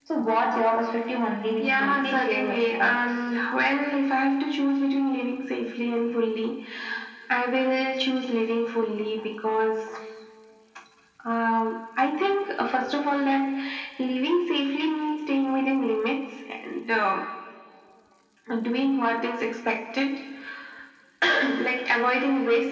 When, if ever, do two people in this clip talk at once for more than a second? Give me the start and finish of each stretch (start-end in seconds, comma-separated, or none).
1.6-3.2